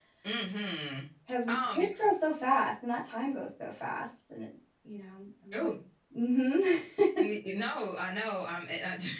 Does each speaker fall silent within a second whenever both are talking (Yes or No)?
Yes